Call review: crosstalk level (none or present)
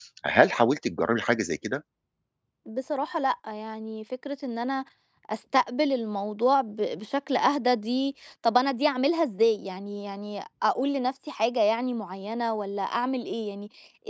none